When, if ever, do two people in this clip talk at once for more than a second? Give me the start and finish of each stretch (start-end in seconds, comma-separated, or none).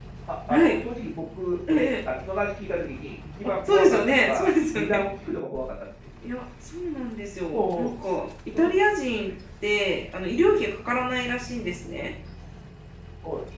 3.4-5.0